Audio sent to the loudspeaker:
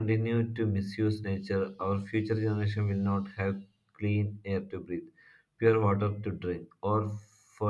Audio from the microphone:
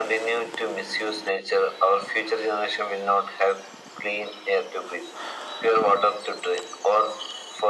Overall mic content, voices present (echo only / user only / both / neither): echo only